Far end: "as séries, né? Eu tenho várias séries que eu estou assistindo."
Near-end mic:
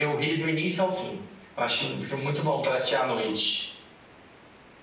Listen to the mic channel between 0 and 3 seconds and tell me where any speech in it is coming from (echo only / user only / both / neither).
user only